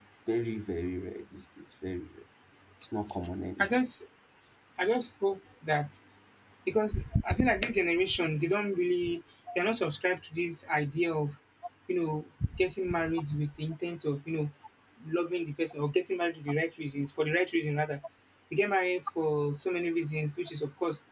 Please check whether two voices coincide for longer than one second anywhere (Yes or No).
No